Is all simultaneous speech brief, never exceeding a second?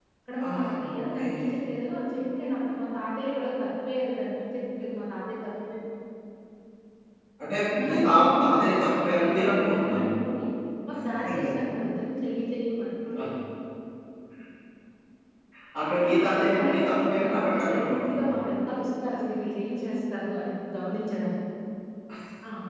No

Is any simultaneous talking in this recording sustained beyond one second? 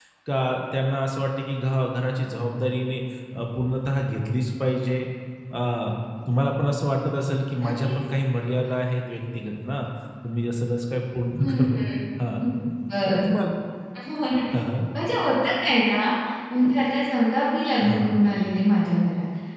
No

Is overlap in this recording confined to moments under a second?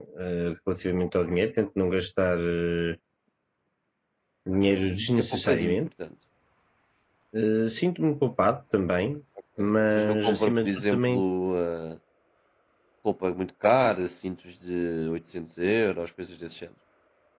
No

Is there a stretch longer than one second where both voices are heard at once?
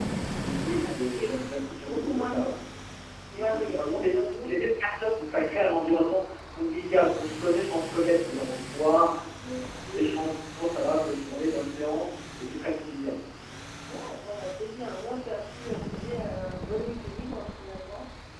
Yes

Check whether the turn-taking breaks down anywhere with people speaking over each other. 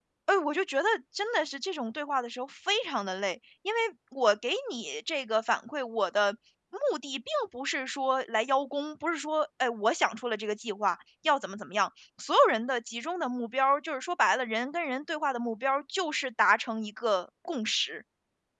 No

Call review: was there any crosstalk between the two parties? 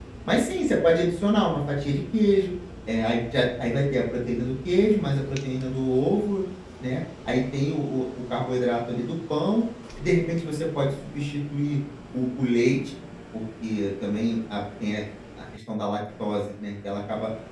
No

